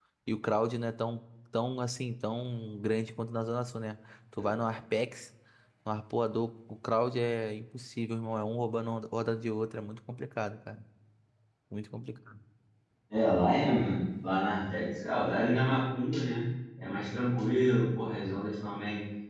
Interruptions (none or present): none